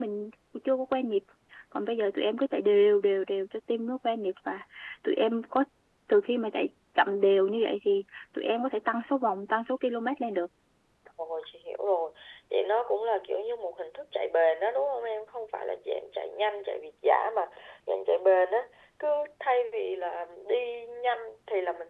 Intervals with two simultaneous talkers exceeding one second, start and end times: none

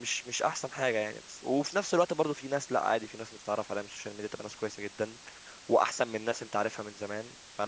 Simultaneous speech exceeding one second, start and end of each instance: none

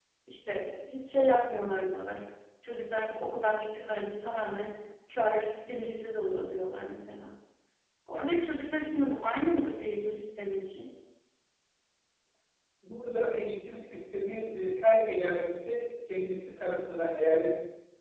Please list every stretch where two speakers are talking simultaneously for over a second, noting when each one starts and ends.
none

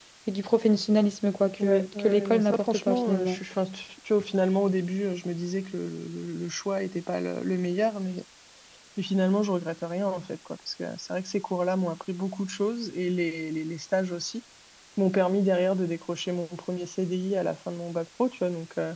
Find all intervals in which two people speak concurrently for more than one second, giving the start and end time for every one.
1.6-3.4

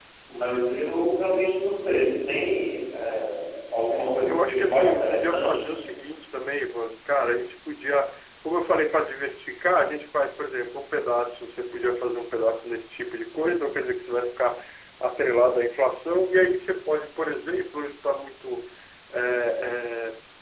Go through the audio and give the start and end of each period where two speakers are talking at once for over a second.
4.3-5.6

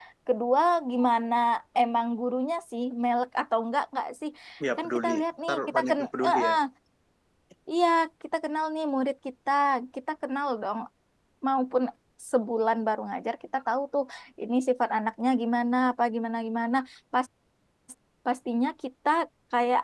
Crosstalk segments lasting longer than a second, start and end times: 4.8-6.5

